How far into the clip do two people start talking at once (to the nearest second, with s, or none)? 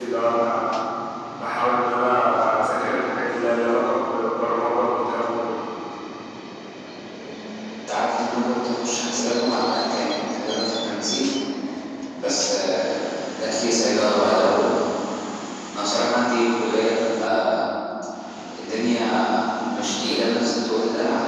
none